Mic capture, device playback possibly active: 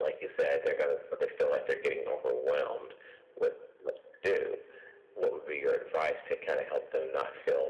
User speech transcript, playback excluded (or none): none